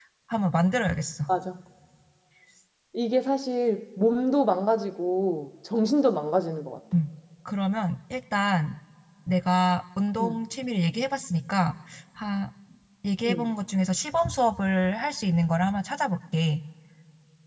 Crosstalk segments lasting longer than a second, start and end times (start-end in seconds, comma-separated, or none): none